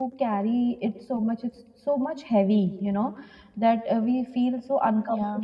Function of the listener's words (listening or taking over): listening